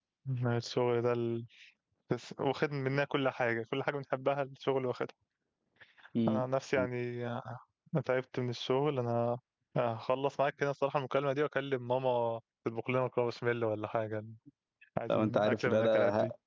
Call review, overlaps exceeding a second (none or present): present